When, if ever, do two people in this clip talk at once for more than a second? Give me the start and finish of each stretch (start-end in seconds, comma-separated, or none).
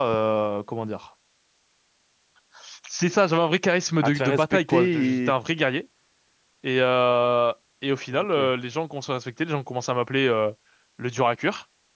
4.0-5.3